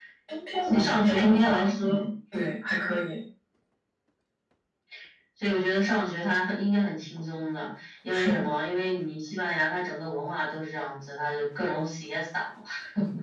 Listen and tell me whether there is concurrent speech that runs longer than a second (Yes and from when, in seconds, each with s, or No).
Yes, from 0.6 s